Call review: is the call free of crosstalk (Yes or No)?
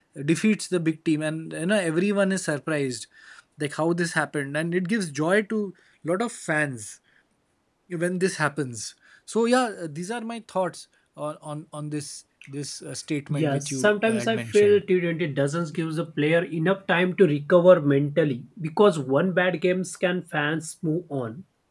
No